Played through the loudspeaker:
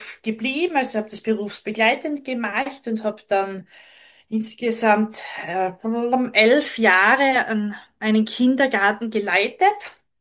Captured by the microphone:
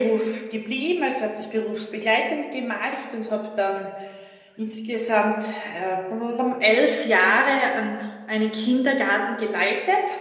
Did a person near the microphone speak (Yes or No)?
No